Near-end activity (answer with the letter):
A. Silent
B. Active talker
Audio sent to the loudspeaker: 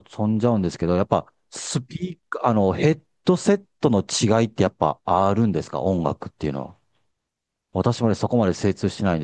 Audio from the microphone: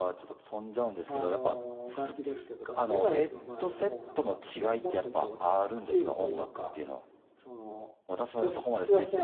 B